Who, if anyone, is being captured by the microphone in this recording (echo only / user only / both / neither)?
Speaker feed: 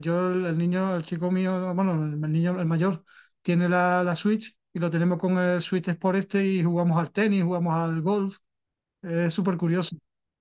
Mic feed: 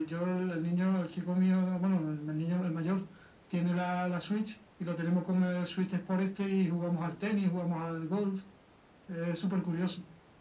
echo only